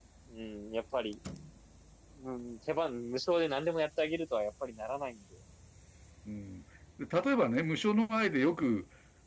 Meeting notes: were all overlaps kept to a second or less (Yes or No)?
Yes